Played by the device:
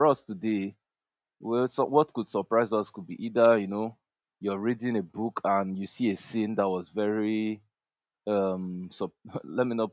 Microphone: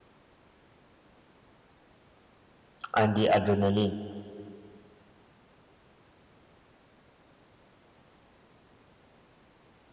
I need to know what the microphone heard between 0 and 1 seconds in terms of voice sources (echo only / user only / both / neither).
neither